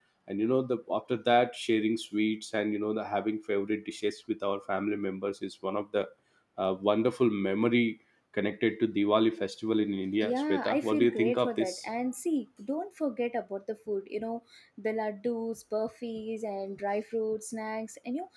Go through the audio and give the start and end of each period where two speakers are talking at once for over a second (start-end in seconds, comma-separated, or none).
10.2-11.7